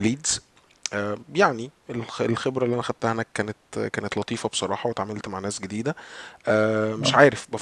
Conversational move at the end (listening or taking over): listening